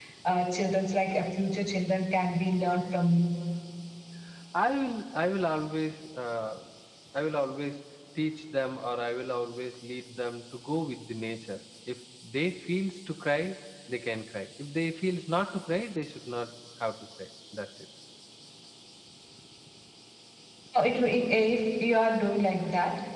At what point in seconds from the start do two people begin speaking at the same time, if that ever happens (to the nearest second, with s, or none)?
none